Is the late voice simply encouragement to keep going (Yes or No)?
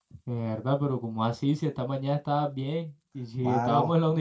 Yes